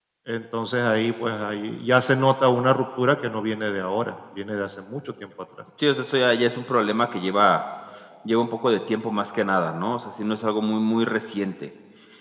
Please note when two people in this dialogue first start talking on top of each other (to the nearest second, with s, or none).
none